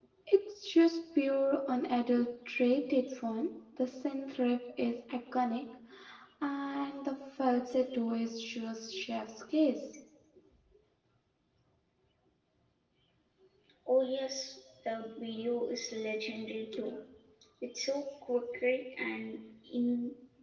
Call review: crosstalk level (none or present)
none